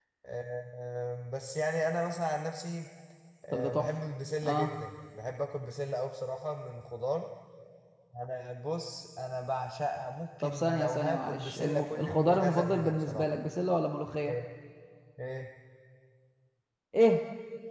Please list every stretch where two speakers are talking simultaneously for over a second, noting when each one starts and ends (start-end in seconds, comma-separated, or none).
10.4-13.3